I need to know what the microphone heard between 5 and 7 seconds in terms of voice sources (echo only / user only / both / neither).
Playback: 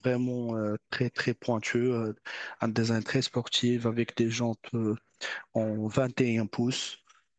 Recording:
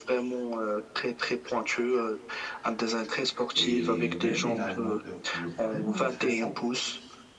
both